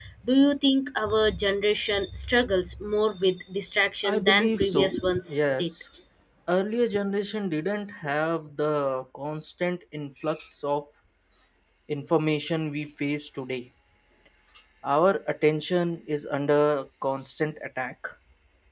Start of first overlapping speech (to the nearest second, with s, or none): 4 s